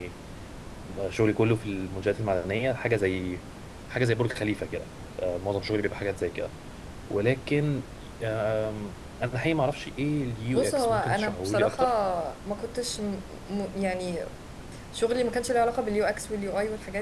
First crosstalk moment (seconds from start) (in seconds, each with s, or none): 10.5 s